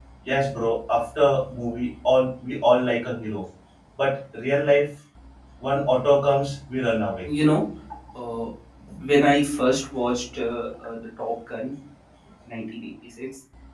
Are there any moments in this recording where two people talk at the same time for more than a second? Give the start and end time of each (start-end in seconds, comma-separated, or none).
none